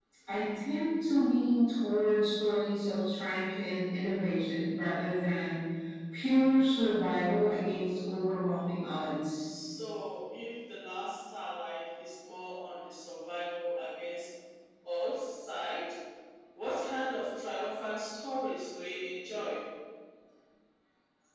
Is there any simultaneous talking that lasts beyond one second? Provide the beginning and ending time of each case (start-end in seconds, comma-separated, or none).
none